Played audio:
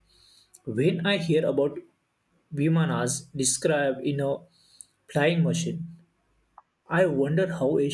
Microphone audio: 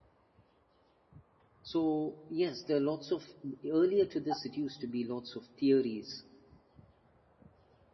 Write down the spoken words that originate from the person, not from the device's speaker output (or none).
so, yes, there are lots of, earlier to this, it used to be lots of theories